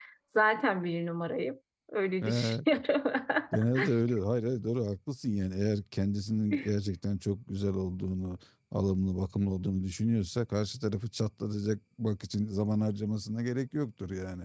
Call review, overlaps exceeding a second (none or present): none